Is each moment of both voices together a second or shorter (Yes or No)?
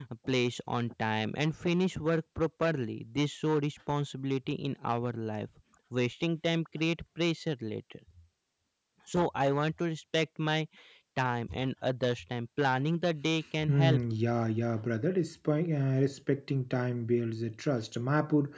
Yes